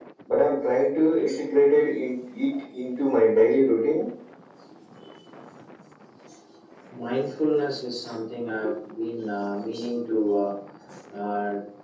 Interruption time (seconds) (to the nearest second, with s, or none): none